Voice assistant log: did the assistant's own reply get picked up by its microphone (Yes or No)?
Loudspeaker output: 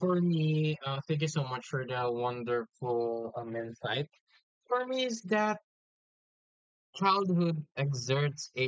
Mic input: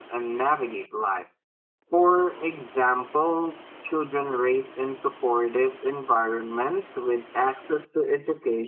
No